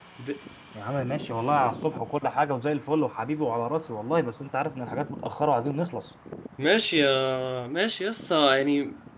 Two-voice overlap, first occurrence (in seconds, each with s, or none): none